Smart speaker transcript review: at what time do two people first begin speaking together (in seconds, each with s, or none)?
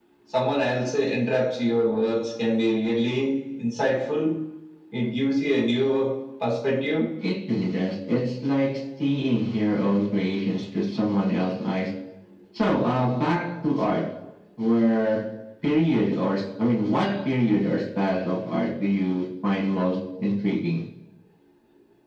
none